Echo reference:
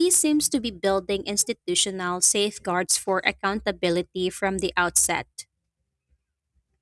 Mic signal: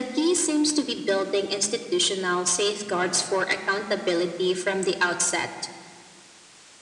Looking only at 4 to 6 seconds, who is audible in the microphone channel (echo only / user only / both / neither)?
echo only